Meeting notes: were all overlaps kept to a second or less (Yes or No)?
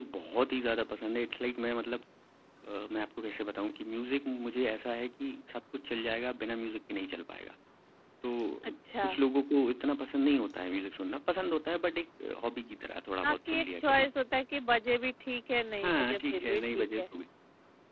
No